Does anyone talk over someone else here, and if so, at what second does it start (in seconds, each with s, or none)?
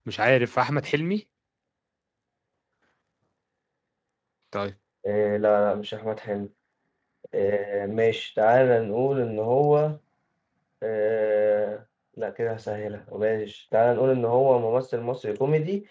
none